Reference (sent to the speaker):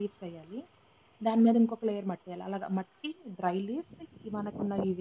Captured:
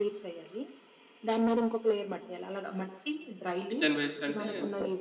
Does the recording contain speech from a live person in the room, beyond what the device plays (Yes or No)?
Yes